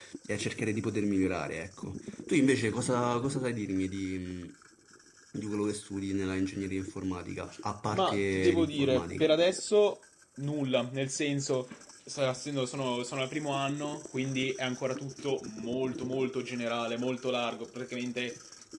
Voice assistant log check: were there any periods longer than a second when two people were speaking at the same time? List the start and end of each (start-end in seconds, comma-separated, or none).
7.9-9.3